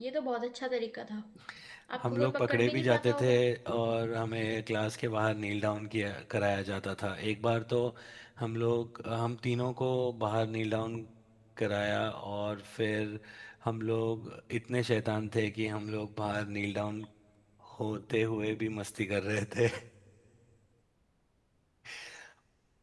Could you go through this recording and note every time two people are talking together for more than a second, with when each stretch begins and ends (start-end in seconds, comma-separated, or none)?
2.0-3.3